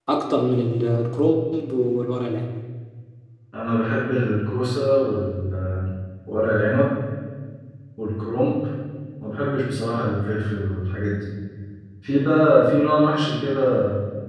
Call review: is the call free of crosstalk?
Yes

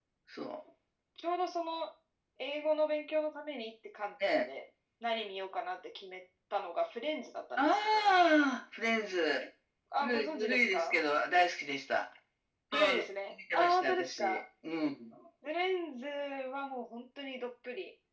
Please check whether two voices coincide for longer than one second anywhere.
Yes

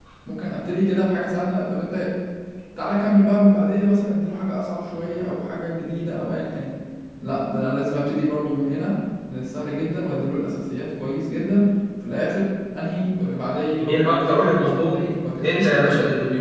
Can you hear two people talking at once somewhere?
Yes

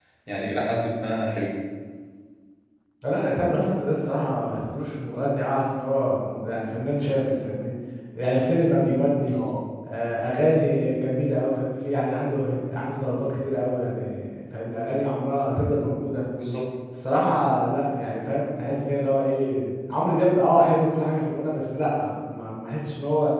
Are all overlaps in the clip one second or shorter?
Yes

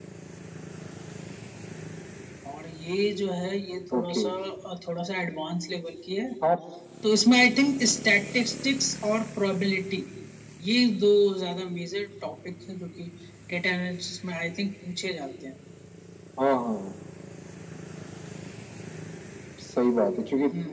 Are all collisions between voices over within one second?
Yes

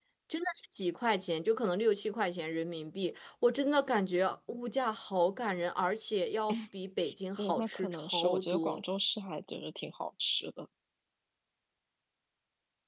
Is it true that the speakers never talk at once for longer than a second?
No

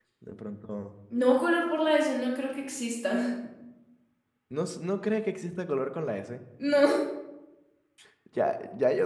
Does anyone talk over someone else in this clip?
No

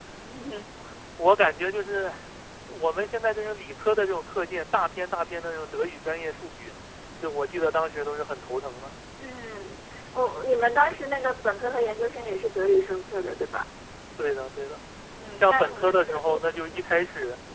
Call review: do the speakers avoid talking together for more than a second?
No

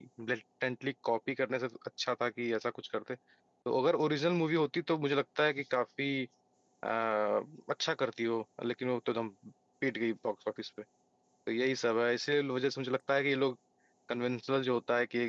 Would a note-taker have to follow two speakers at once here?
No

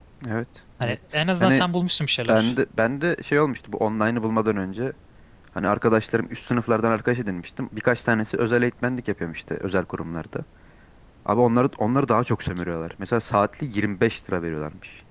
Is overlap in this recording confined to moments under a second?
Yes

